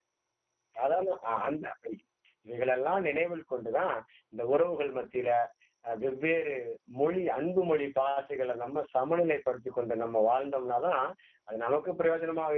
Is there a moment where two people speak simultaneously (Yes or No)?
No